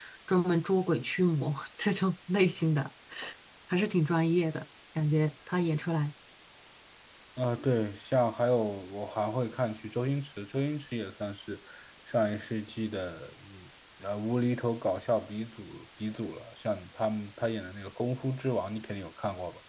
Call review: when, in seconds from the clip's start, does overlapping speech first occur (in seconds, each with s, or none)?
none